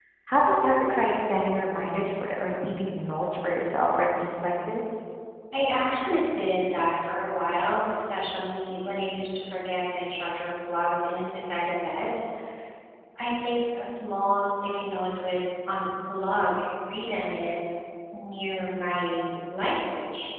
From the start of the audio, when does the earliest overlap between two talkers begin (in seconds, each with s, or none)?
none